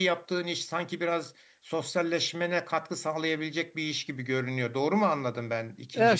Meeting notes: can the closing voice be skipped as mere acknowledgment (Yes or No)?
No